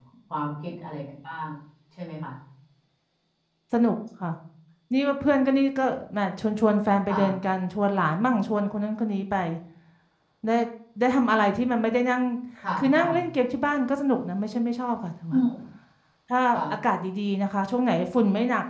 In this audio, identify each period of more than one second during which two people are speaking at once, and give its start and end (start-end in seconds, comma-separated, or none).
none